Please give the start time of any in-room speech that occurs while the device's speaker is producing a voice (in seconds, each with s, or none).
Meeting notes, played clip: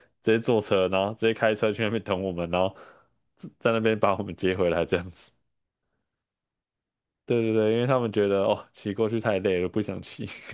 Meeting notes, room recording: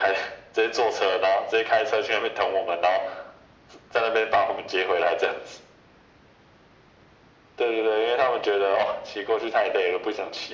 none